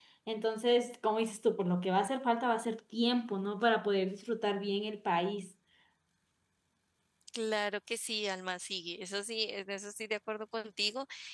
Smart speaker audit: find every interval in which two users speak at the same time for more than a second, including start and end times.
none

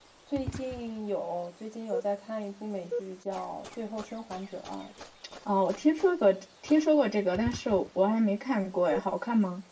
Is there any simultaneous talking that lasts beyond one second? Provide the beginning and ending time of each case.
none

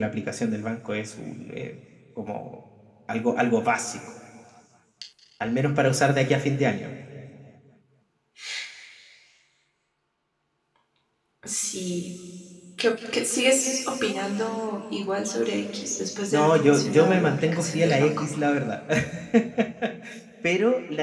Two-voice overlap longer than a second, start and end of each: 16.3-18.2

